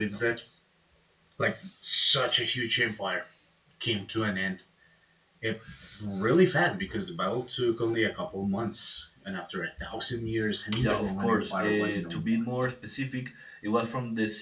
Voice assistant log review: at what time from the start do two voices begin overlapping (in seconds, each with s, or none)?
10.8 s